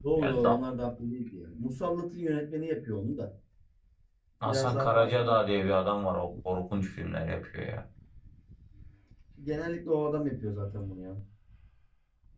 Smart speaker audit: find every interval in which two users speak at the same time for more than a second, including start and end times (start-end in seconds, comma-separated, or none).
4.4-5.8